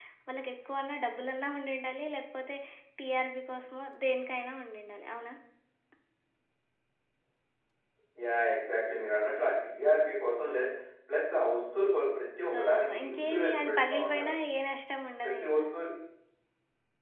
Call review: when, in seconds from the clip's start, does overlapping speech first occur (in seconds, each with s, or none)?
12.6 s